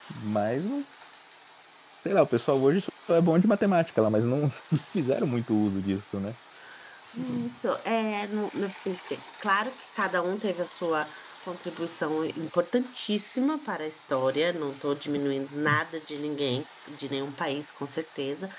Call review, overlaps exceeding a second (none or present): none